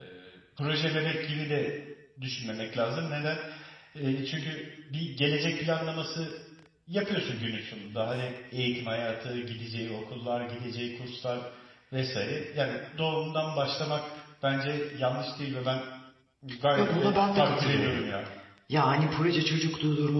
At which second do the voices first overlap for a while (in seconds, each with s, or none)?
16.8 s